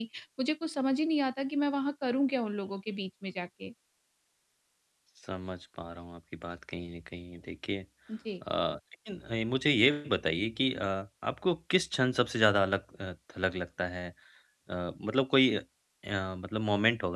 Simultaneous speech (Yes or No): No